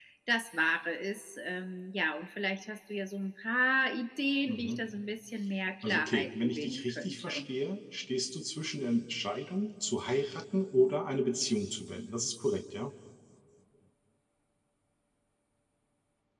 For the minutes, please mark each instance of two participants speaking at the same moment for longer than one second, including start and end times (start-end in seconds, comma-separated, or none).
5.8-7.4